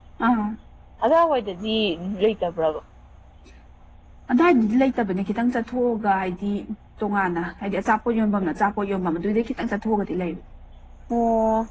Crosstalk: none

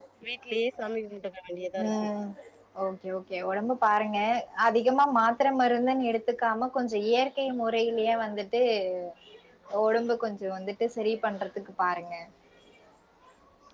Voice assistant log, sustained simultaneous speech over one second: none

